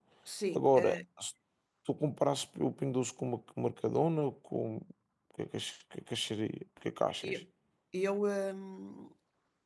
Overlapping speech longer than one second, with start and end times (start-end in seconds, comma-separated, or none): none